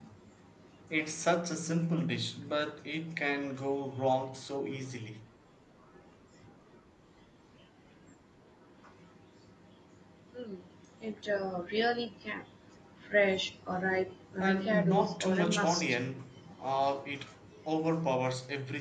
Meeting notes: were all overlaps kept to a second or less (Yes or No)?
No